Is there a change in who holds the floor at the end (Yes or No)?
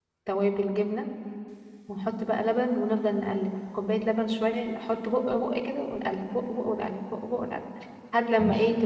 No